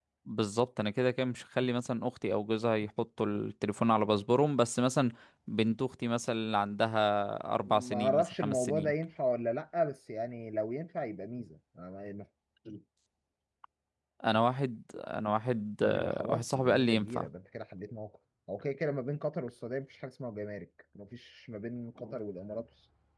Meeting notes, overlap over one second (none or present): present